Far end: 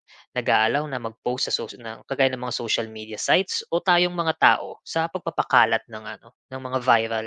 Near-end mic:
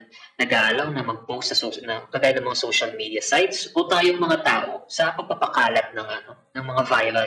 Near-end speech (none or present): none